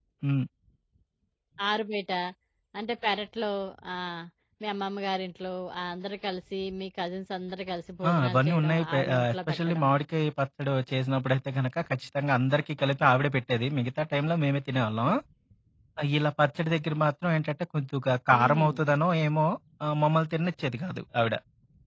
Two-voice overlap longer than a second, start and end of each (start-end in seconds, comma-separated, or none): 8.1-9.9